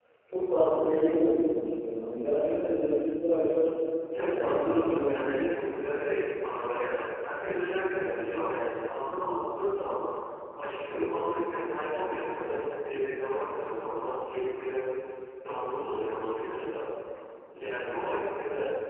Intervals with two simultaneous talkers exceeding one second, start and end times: 4.2-5.4

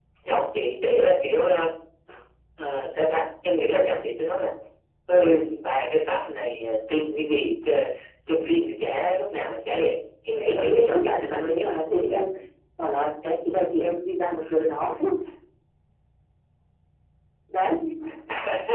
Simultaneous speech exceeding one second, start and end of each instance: 10.5-11.8

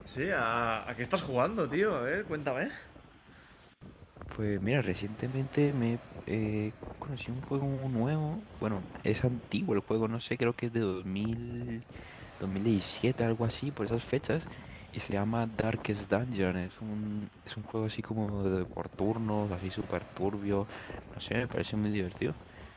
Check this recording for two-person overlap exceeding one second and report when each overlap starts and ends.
none

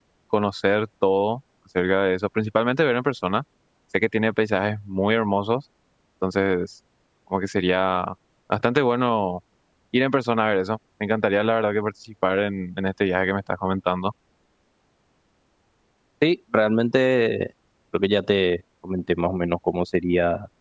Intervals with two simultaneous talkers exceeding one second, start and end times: none

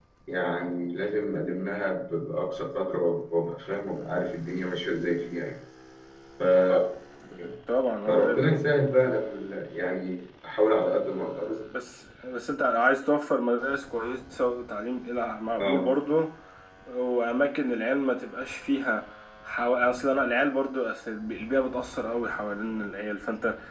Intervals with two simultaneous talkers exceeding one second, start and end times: none

